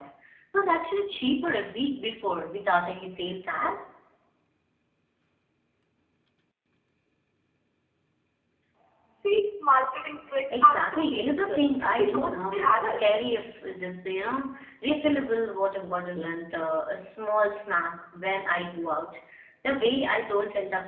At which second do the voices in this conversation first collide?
10.4 s

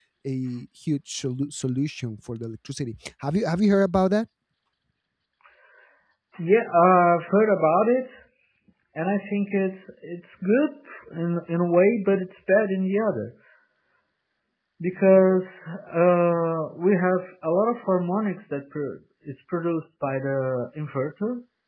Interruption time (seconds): none

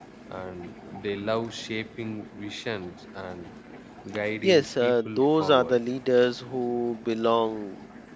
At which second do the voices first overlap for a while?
4.5 s

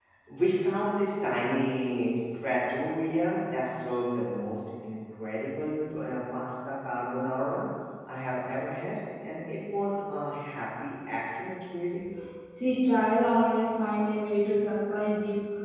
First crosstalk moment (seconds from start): none

